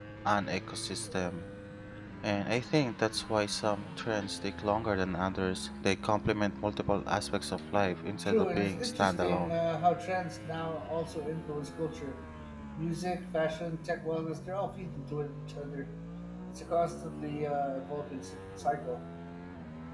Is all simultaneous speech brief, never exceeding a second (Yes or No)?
No